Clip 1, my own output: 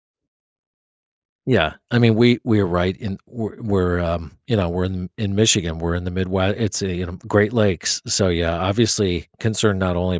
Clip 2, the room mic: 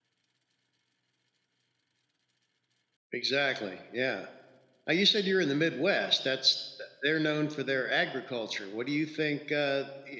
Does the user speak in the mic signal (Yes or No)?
Yes